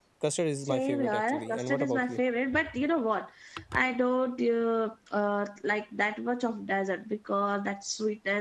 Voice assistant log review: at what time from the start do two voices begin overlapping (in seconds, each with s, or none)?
0.7 s